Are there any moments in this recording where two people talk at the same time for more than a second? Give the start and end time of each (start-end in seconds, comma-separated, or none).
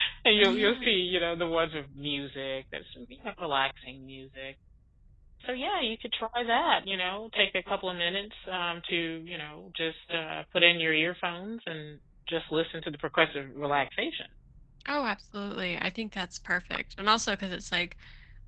none